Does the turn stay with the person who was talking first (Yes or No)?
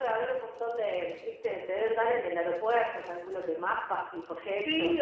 No